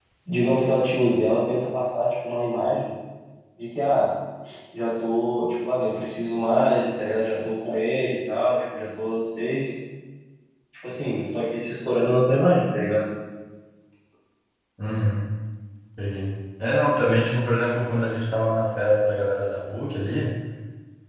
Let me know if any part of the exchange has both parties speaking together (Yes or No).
No